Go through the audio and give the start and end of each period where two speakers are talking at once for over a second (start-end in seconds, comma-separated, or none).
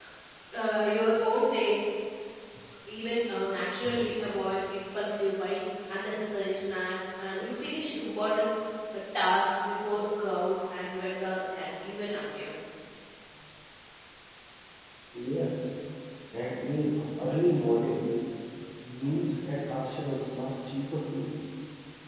none